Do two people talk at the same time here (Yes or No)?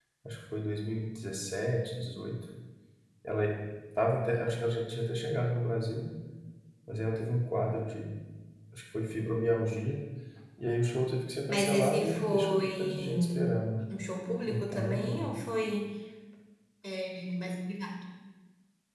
Yes